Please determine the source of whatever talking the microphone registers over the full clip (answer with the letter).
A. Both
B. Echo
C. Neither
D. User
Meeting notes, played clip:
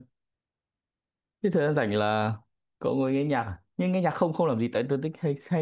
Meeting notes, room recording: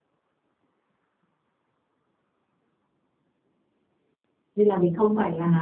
D